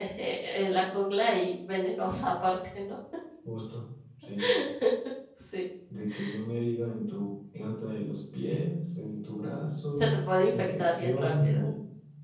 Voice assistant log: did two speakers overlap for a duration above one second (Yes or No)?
Yes